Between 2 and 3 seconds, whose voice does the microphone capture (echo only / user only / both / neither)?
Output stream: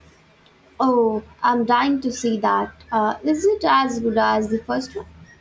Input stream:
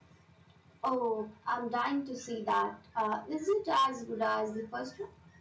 echo only